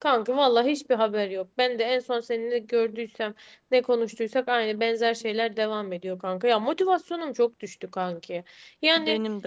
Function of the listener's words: listening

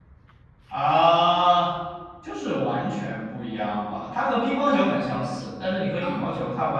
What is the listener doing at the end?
listening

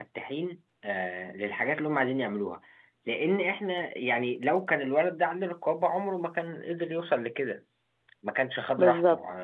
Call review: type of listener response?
taking over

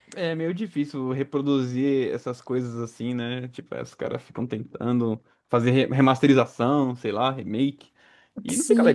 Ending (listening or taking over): taking over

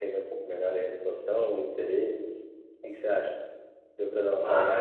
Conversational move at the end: taking over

